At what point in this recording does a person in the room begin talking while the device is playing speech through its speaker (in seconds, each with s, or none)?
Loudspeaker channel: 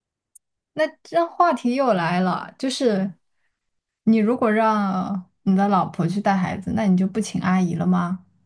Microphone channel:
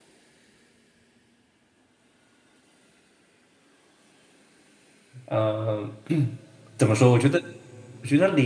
5.3 s